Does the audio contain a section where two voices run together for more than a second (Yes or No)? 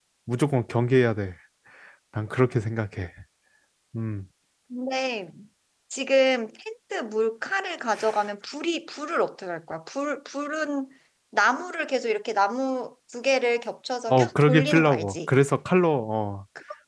Yes